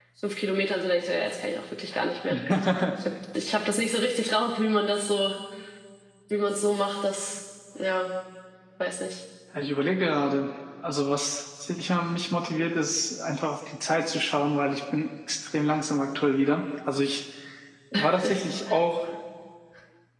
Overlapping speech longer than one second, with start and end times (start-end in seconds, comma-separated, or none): none